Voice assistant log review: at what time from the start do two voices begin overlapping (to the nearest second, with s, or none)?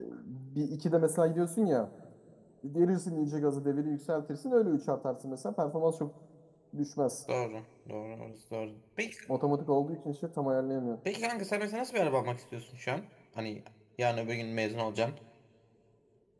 none